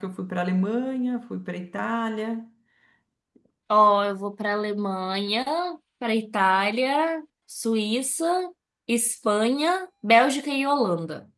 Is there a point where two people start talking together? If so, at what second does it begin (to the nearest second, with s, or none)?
none